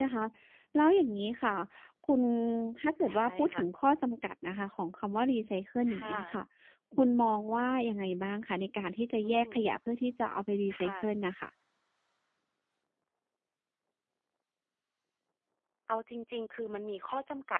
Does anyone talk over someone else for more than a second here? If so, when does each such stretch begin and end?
none

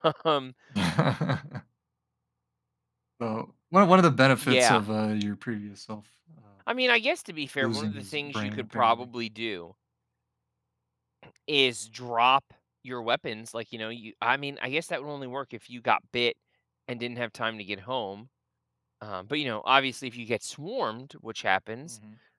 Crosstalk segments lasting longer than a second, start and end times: 7.6-9.0

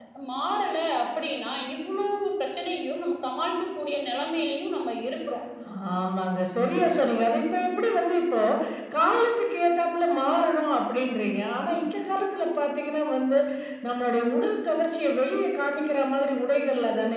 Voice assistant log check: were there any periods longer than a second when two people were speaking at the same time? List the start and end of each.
none

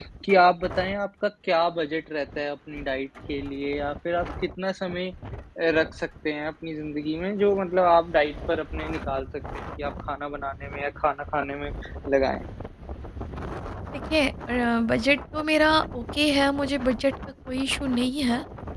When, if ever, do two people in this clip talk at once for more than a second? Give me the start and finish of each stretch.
none

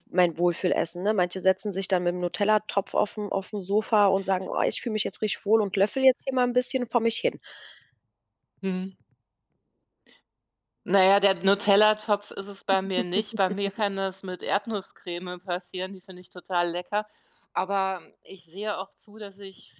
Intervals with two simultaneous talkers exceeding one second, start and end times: none

